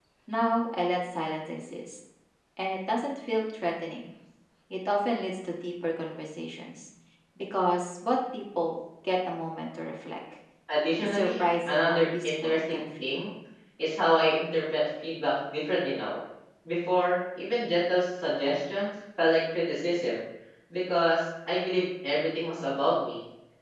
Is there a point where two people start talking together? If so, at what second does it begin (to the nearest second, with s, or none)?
11 s